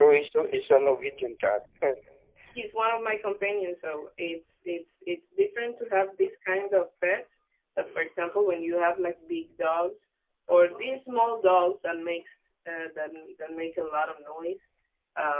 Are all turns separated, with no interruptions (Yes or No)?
Yes